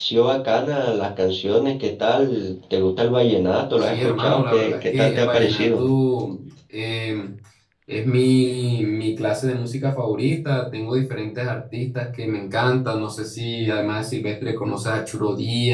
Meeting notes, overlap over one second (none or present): present